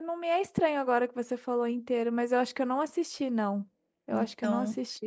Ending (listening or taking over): taking over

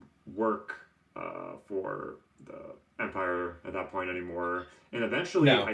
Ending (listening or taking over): listening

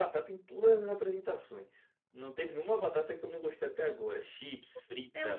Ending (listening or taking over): taking over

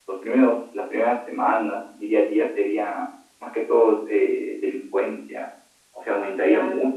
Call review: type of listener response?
listening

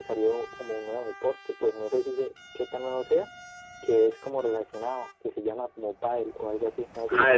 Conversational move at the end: taking over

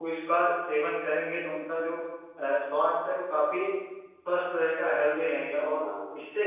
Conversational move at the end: listening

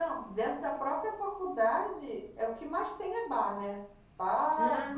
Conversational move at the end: listening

